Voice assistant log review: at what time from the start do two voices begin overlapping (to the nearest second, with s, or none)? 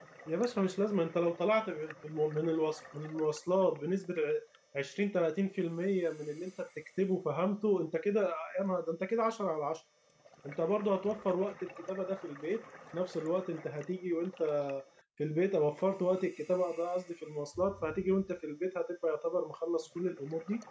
none